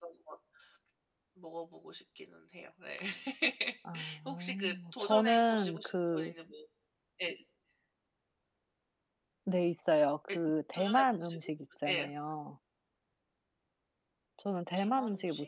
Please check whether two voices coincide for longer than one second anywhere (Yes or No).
Yes